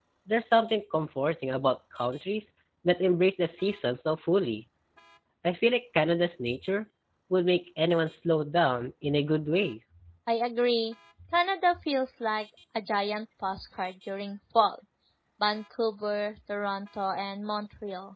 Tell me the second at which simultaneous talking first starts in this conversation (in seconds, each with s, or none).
none